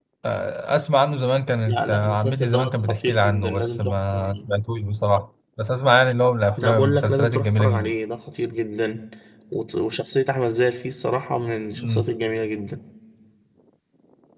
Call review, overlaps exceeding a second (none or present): present